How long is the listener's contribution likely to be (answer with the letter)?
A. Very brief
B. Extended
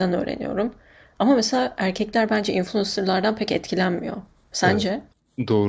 B